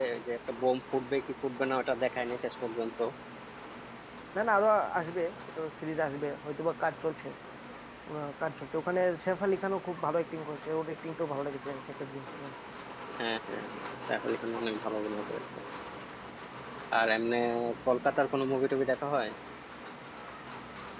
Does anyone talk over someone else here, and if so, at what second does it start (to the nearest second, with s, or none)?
none